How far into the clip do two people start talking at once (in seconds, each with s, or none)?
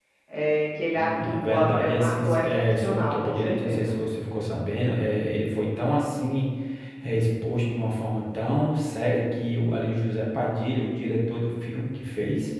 1.0 s